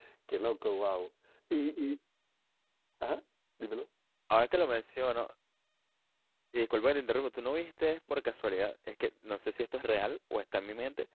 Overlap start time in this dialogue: none

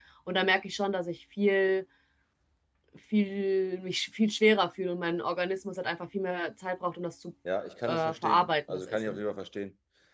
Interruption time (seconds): 7.9 s

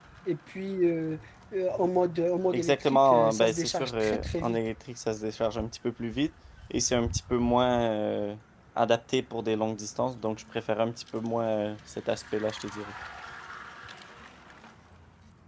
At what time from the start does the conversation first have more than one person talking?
2.5 s

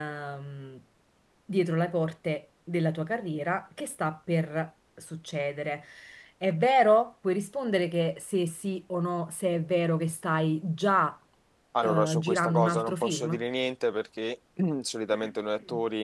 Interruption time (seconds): 11.8 s

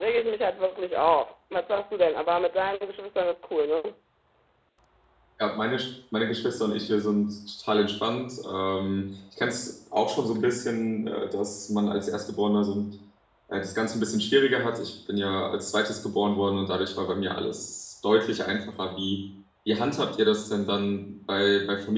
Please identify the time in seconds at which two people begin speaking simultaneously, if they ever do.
none

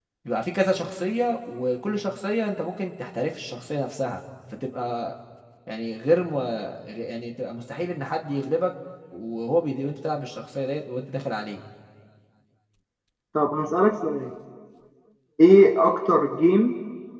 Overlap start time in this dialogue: none

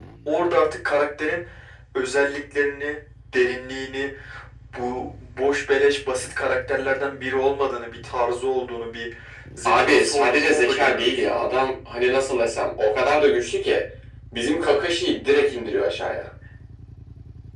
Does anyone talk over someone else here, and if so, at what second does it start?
9.6 s

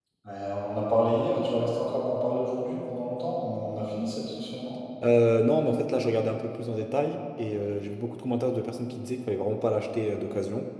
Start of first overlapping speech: none

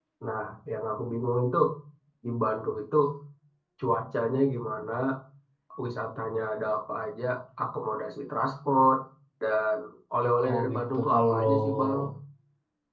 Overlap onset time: 10.5 s

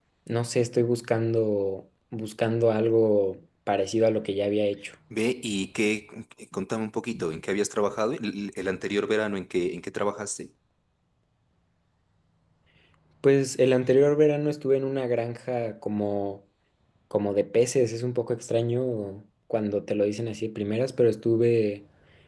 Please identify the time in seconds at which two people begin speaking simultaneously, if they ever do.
none

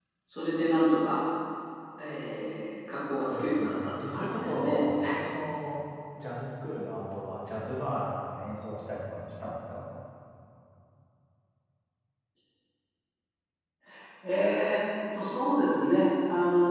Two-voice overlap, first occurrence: 3.2 s

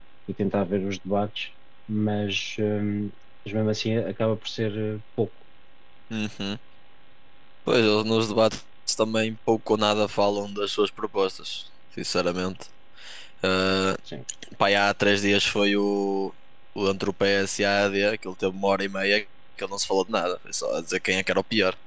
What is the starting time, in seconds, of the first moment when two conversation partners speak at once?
none

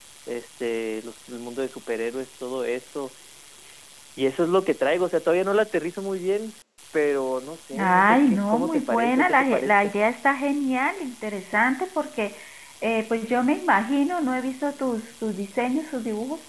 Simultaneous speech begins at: 7.7 s

